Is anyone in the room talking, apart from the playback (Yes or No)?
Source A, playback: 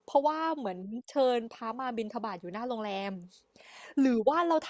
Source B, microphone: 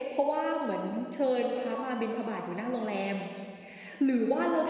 No